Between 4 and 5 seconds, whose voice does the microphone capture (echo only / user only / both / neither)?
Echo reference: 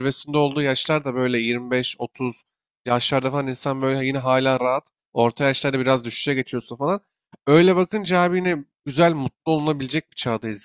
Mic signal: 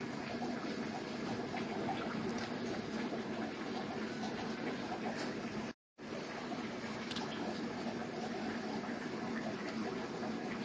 neither